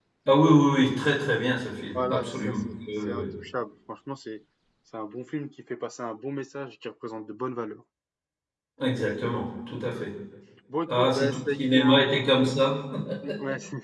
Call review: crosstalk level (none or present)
present